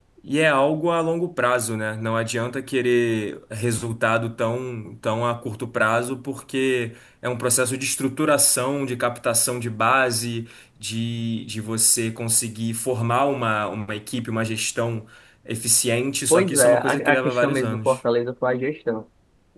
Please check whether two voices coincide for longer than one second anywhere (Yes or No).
Yes